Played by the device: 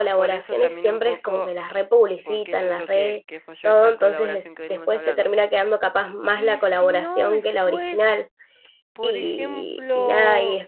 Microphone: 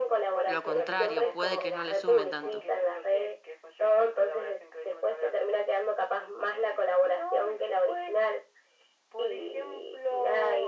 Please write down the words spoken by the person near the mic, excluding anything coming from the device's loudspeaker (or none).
lo contrario, puede que no le sume tanto.